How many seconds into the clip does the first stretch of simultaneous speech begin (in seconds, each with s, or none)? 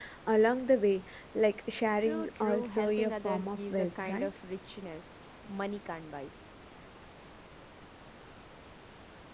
2.0 s